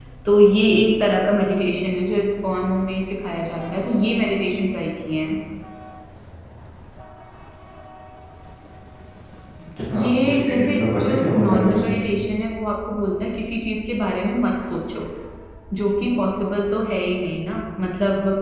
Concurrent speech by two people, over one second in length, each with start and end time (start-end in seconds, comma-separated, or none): 9.9-12.1